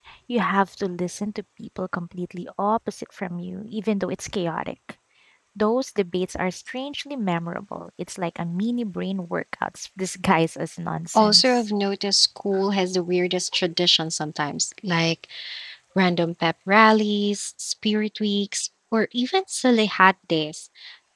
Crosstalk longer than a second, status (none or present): none